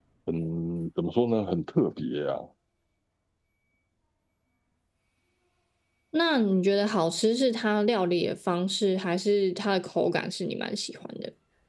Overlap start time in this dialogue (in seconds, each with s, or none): none